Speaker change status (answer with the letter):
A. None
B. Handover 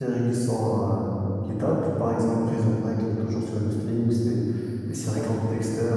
A